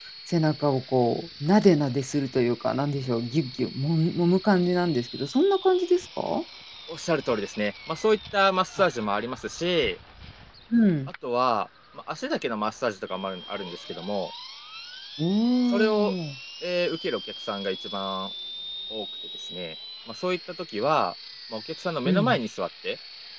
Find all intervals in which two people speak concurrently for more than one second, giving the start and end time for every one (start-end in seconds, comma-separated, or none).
none